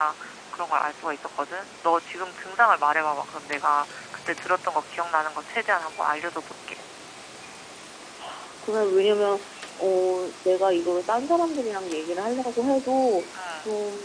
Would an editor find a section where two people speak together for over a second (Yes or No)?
No